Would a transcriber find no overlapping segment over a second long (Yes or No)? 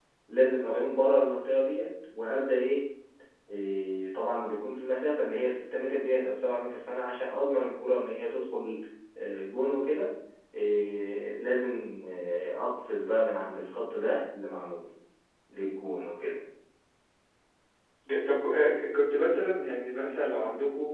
Yes